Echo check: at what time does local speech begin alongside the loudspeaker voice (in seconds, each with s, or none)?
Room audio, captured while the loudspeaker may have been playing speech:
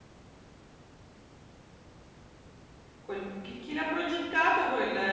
3.0 s